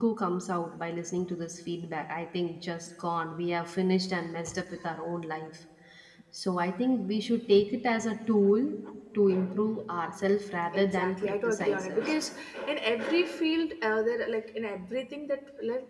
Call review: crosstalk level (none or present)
present